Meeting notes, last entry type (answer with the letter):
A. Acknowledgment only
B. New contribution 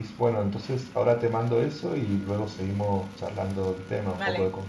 B